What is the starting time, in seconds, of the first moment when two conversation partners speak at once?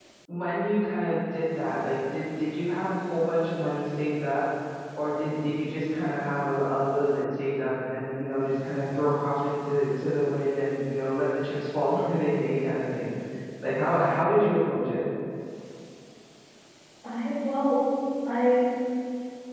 none

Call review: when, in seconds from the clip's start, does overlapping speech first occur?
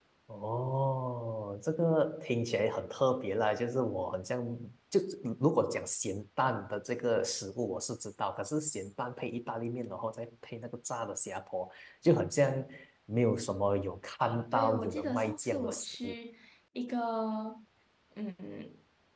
14.5 s

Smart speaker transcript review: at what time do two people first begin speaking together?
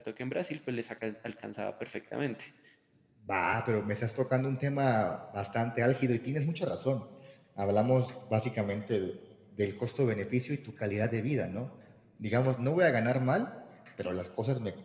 none

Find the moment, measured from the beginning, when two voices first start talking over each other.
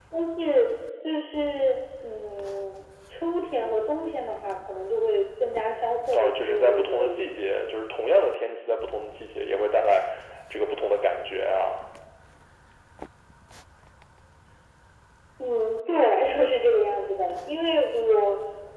6.1 s

